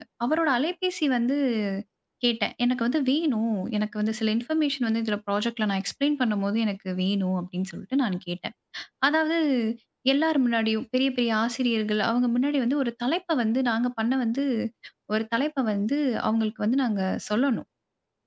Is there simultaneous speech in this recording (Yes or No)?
No